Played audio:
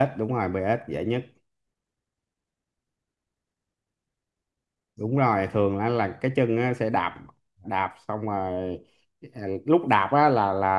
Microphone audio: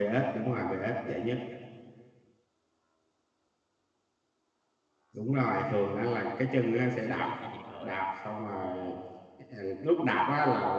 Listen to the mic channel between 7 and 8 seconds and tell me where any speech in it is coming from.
both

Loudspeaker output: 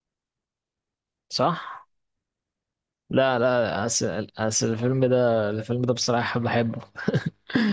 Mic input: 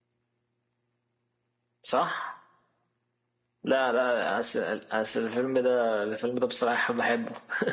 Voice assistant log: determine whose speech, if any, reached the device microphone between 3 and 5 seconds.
echo only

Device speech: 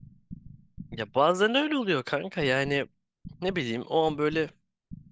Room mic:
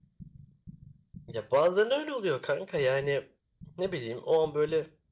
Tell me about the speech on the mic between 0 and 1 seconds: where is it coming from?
neither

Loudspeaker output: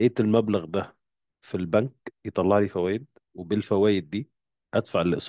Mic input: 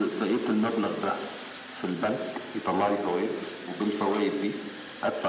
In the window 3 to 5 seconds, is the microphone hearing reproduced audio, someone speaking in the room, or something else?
echo only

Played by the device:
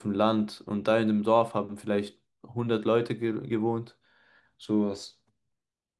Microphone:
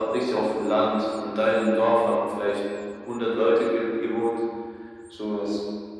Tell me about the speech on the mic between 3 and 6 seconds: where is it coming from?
echo only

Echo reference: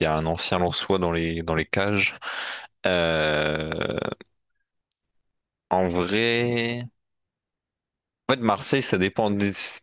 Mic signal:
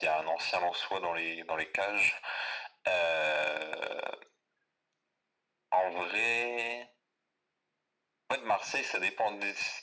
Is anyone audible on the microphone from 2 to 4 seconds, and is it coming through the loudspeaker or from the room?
echo only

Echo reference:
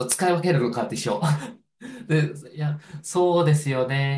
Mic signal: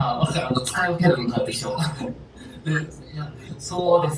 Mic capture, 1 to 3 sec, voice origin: echo only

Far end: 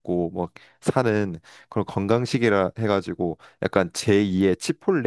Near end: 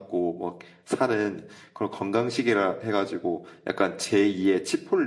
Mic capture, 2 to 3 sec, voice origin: echo only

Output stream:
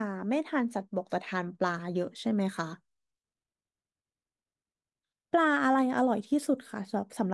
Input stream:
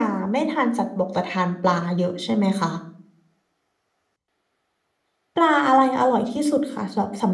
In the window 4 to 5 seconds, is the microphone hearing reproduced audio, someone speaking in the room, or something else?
neither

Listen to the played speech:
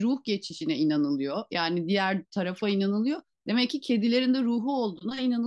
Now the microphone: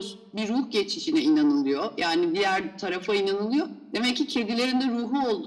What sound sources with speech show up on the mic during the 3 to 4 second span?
echo only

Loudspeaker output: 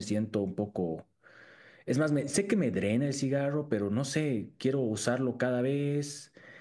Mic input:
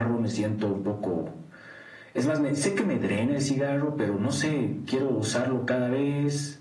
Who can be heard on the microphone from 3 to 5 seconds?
echo only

